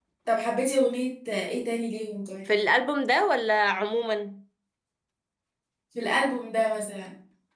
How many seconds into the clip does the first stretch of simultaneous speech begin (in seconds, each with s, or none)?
none